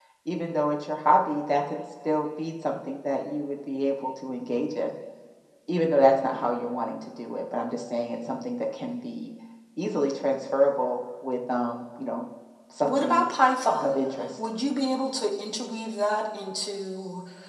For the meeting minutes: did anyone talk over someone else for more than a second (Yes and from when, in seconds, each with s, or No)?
No